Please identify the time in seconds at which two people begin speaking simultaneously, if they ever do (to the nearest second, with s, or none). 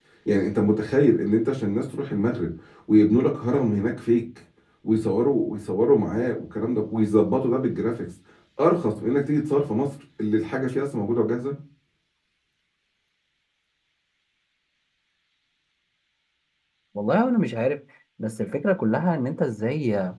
none